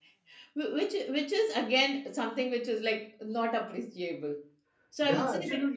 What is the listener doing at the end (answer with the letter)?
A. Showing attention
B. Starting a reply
B